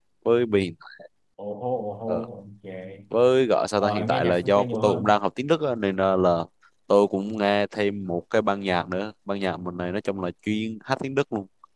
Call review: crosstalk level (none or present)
present